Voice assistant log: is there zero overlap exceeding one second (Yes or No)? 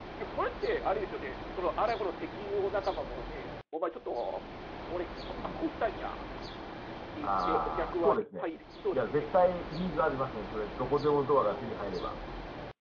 No